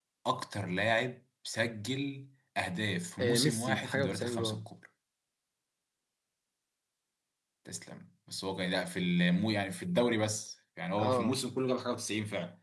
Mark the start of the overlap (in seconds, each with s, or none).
3.2 s